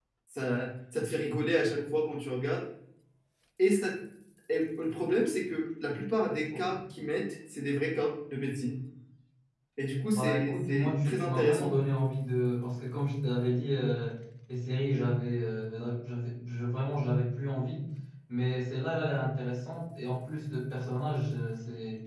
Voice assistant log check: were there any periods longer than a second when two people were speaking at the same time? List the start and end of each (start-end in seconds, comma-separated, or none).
10.1-11.7